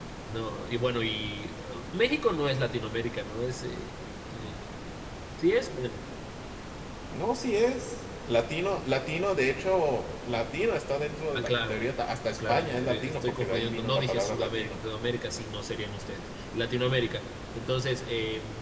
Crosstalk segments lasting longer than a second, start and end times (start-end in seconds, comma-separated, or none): 12.4-14.8